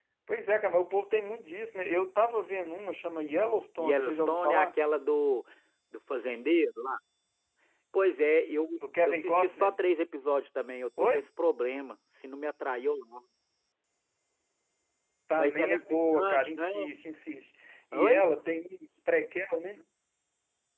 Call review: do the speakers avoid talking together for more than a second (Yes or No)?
No